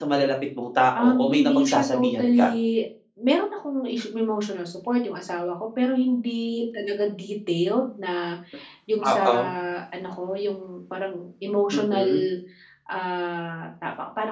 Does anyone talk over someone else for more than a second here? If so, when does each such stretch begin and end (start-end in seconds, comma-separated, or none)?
1.0-2.5